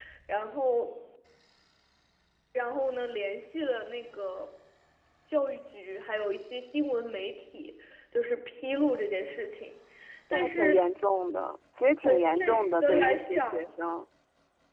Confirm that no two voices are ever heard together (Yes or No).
No